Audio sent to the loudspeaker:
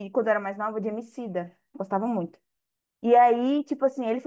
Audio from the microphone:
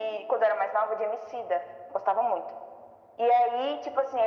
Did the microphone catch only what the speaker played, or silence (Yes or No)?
Yes